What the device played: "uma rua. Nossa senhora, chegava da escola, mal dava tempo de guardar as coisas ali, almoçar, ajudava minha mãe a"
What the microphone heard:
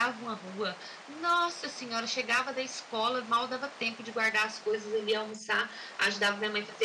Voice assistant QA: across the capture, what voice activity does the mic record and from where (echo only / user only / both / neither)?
echo only